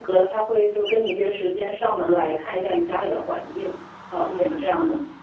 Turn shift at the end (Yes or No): Yes